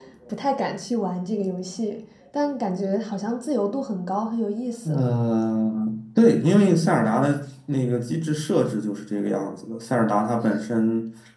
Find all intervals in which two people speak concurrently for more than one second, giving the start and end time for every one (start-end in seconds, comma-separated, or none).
none